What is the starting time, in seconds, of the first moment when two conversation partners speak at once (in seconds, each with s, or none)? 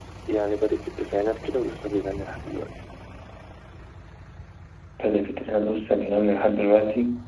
none